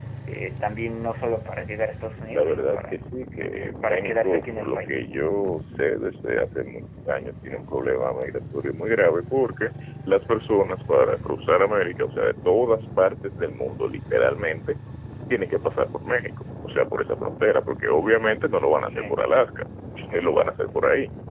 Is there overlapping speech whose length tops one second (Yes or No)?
Yes